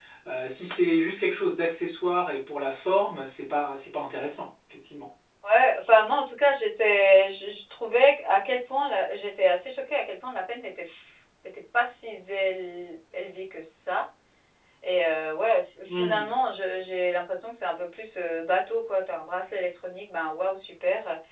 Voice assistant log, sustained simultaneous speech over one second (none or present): none